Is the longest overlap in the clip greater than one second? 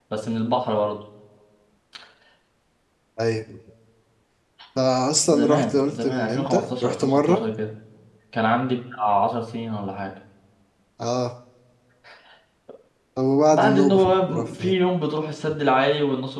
Yes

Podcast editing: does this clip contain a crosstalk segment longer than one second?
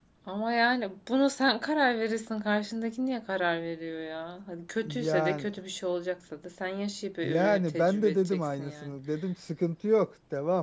Yes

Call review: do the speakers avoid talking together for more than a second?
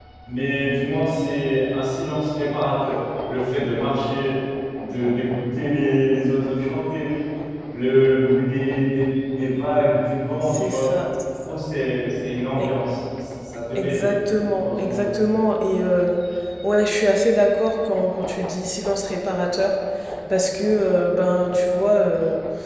Yes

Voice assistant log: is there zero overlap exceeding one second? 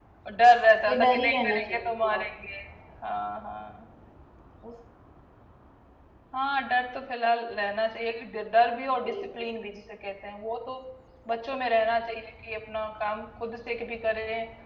No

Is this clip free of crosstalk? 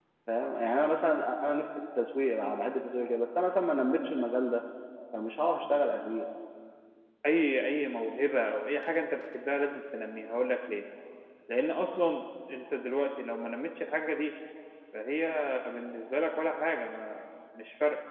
Yes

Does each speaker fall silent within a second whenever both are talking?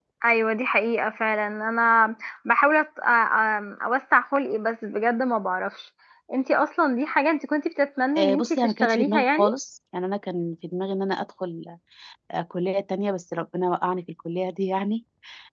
No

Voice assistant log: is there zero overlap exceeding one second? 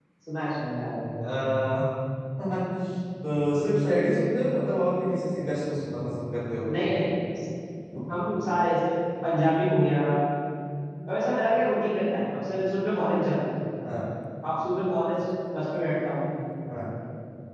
Yes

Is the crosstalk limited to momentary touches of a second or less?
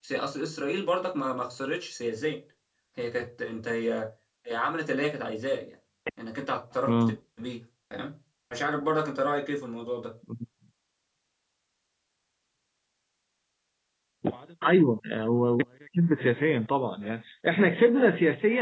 Yes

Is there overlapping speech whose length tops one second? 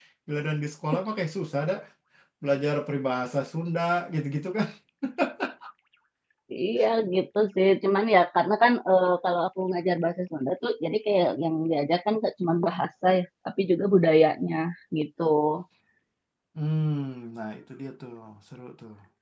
No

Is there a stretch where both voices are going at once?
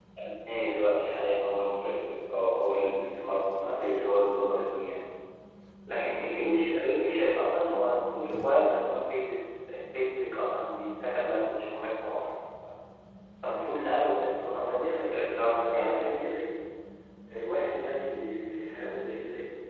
Yes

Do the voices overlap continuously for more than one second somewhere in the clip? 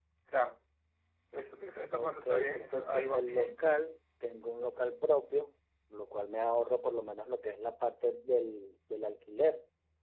Yes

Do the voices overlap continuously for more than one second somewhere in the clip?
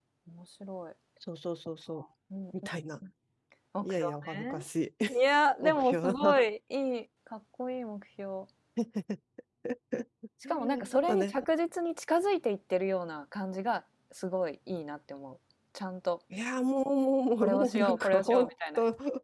Yes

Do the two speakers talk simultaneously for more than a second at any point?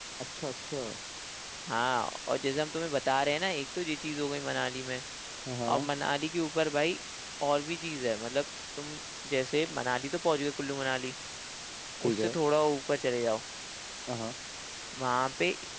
No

